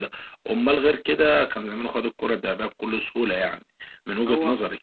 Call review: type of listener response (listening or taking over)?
listening